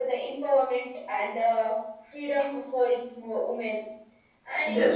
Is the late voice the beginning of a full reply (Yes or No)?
Yes